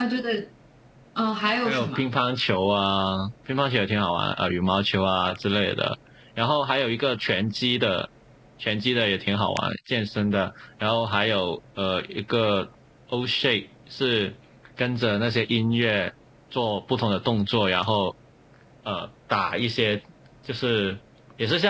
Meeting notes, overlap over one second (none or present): none